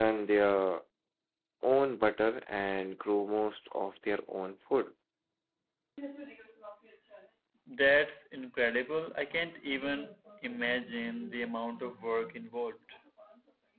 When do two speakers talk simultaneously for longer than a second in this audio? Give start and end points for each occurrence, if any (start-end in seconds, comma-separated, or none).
none